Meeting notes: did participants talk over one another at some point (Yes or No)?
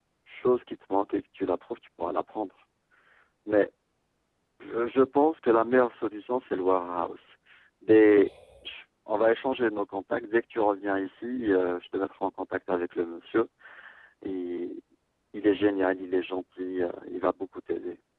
No